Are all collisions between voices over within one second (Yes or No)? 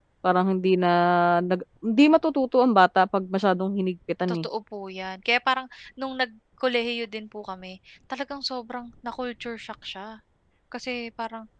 Yes